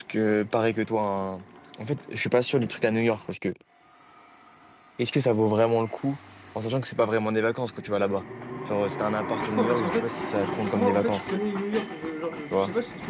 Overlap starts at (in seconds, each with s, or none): 9.5 s